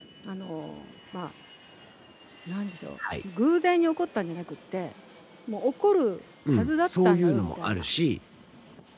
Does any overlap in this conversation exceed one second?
Yes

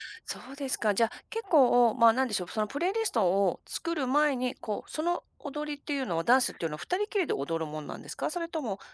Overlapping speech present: No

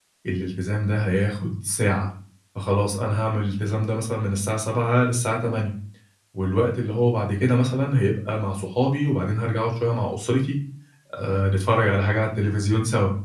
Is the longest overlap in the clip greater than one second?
No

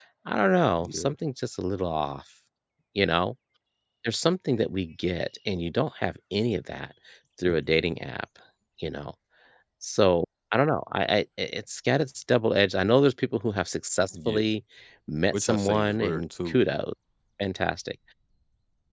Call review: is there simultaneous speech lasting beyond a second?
Yes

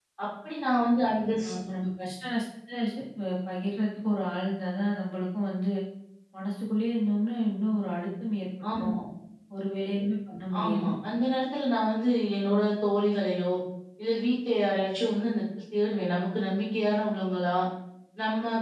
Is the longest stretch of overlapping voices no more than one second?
Yes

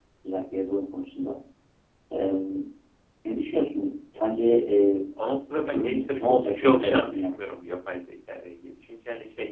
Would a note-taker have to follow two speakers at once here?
Yes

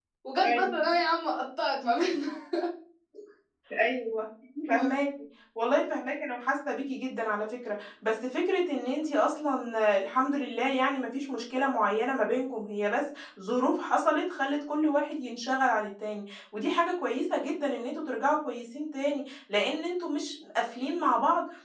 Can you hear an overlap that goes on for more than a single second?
No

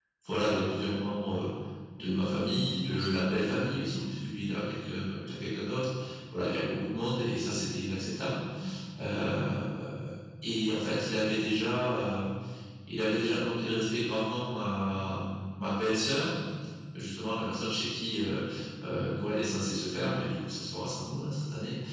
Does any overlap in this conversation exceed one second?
Yes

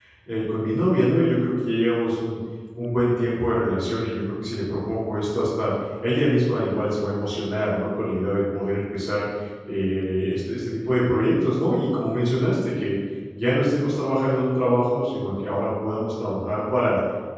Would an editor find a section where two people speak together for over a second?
No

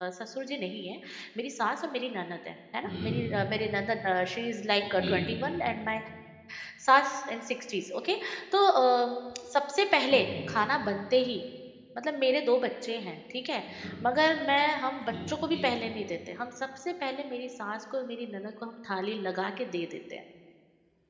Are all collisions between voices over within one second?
Yes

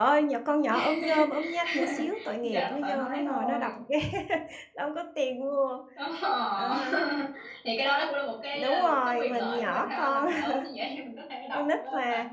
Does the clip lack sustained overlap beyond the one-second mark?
No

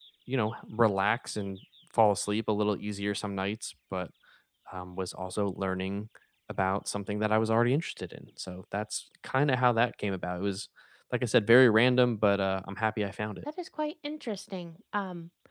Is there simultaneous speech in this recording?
No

